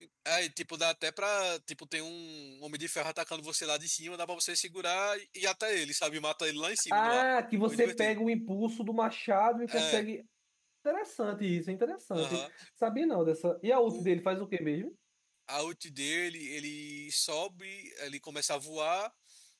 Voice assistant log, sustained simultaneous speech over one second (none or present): none